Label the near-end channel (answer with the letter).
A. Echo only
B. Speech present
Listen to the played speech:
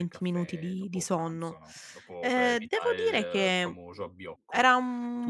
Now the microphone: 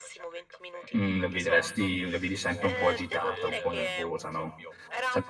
B